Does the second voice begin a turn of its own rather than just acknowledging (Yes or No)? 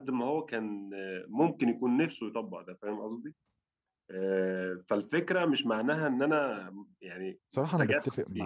Yes